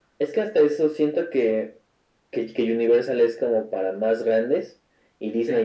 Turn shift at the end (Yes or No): No